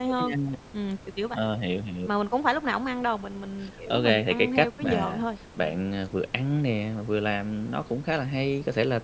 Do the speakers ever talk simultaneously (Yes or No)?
Yes